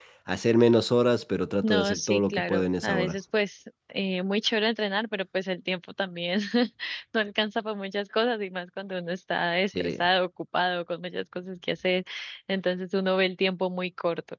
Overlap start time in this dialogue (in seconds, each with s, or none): 1.6 s